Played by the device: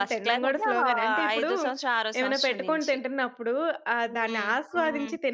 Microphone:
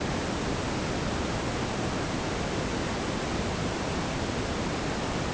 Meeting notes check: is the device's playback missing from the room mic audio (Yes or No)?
Yes